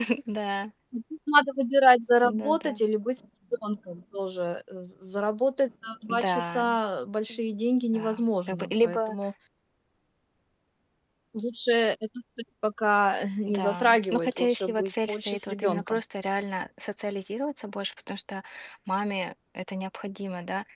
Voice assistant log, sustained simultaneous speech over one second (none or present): present